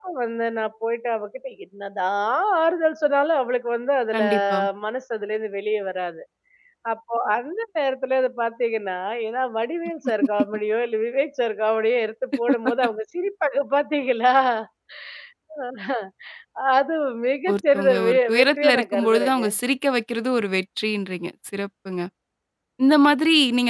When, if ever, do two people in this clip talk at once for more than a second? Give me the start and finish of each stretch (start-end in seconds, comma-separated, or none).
17.5-19.4